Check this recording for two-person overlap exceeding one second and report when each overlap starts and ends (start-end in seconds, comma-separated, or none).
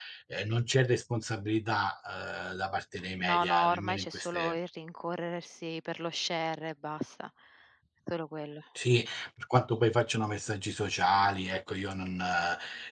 3.2-4.6